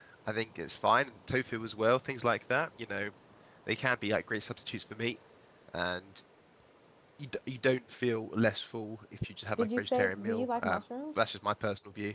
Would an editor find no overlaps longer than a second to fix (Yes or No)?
No